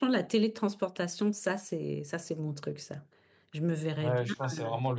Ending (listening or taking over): taking over